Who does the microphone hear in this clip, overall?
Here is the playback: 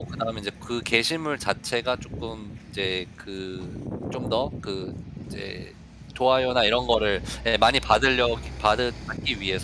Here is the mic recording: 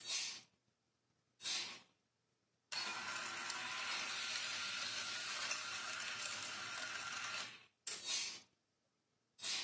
neither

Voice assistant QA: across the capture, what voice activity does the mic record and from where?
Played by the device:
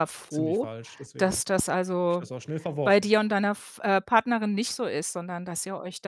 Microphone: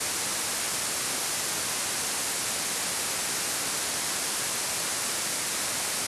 neither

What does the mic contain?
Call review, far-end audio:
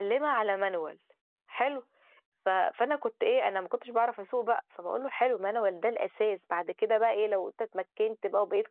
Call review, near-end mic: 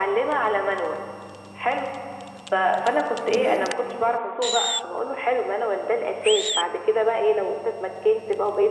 echo only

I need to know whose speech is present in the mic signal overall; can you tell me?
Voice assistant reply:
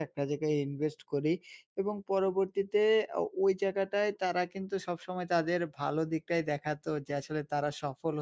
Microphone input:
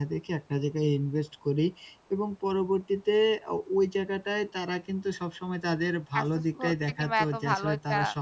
both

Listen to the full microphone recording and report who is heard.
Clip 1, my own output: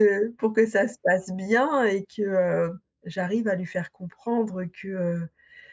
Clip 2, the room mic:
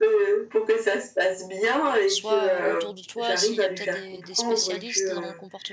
both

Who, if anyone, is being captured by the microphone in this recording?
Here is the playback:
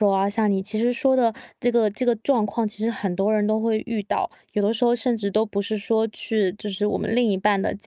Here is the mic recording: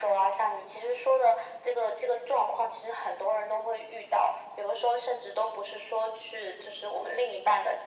echo only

